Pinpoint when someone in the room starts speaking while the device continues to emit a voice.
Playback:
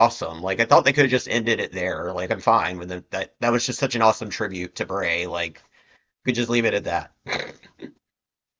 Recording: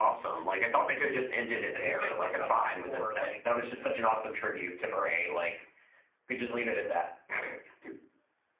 2 s

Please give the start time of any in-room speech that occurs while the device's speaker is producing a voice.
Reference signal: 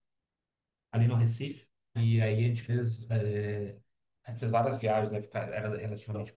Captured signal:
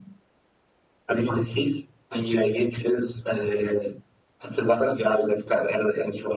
none

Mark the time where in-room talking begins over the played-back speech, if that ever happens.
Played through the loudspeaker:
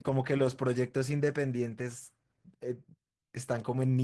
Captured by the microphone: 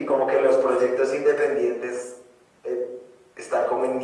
none

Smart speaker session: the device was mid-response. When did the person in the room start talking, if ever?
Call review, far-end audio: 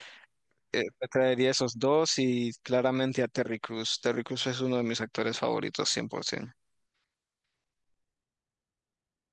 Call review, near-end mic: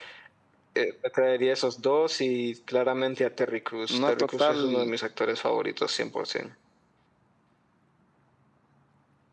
4 s

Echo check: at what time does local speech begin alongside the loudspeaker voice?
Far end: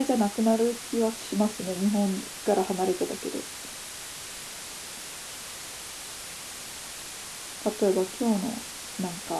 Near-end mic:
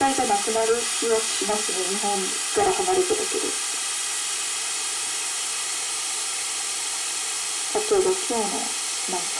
none

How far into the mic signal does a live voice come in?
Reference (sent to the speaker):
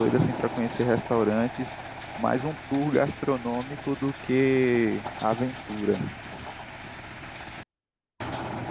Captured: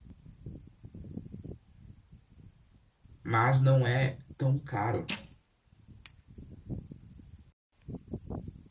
3 s

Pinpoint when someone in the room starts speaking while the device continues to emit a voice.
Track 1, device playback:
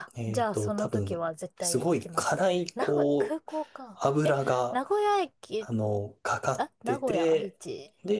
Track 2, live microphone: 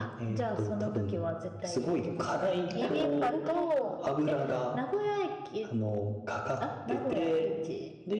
3 s

